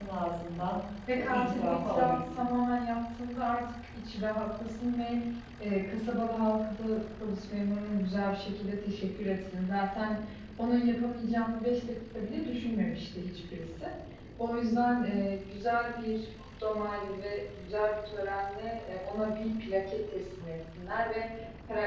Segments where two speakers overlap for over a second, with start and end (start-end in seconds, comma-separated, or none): 1.2-2.4